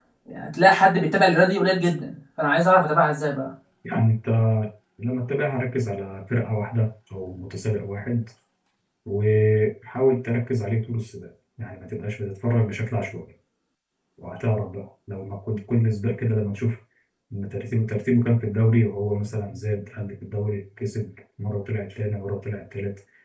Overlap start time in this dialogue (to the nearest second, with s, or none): none